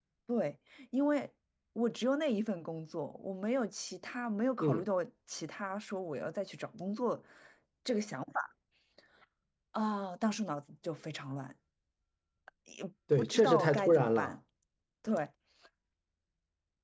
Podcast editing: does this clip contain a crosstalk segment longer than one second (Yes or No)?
Yes